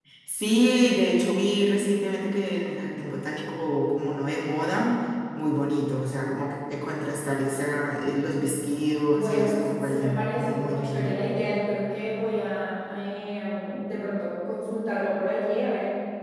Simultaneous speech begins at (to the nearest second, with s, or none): 9 s